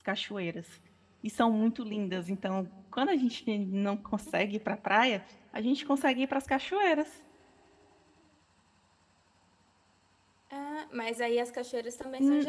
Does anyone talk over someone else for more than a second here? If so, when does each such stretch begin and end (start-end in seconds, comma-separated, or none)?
none